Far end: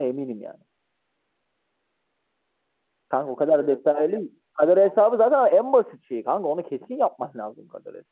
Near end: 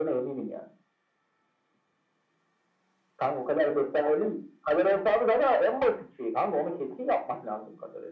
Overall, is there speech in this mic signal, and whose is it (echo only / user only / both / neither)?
echo only